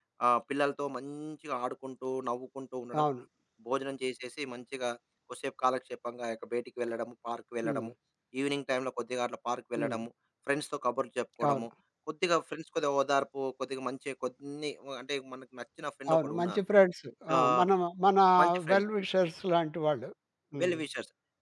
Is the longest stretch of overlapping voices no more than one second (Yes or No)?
Yes